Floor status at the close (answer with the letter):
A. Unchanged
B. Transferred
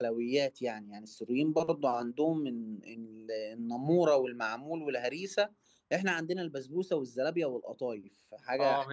B